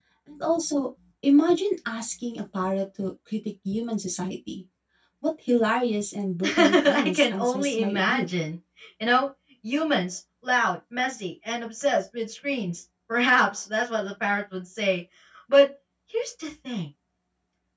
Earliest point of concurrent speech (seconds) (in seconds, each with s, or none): 6.4 s